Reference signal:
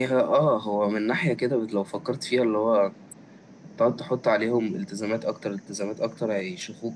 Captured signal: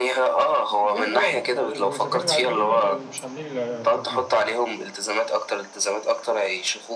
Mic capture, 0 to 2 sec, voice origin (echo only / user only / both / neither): both